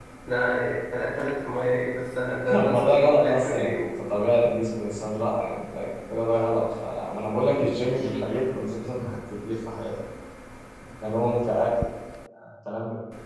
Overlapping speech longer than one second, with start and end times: 2.6-3.9

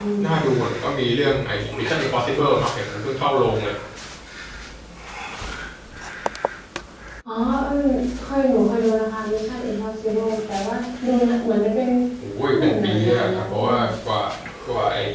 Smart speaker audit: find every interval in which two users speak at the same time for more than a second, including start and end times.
12.5-13.9

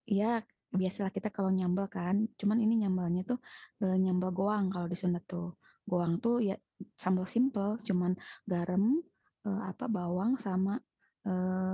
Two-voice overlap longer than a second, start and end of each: none

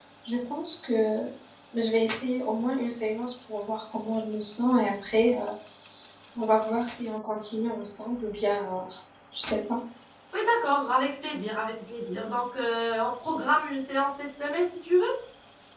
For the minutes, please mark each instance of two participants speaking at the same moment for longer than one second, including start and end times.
none

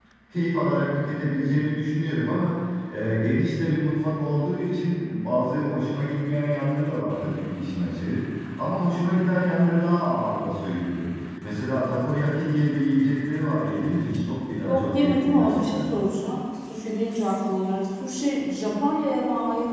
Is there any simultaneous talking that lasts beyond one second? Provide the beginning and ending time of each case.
14.7-15.9

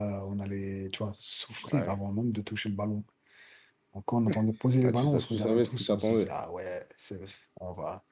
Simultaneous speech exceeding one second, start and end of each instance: 4.8-6.3

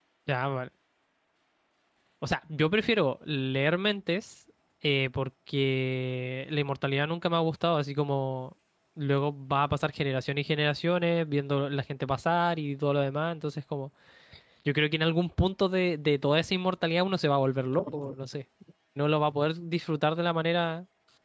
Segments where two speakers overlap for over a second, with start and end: none

